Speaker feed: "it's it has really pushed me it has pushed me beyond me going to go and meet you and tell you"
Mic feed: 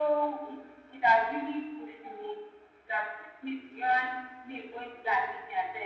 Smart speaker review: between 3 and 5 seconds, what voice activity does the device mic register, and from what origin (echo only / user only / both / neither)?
echo only